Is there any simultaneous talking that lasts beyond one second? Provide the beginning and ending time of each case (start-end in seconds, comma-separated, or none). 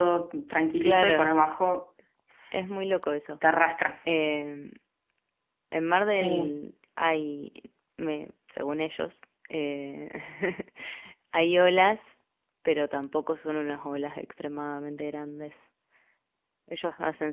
none